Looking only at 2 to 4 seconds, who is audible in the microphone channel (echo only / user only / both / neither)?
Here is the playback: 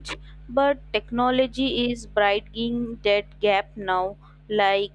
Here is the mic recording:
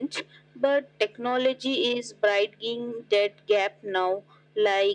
echo only